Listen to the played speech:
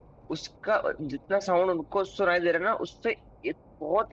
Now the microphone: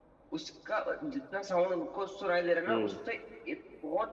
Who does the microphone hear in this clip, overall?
both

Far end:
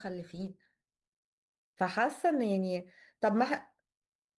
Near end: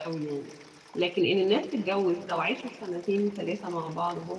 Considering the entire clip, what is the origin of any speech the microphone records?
user only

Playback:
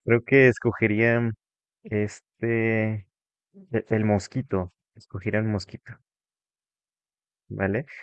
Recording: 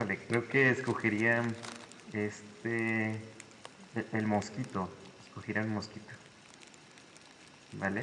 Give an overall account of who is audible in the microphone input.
echo only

